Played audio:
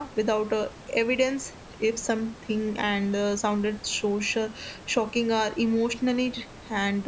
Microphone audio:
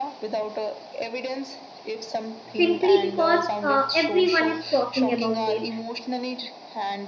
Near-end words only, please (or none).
simply because uh, everyone is talking about it.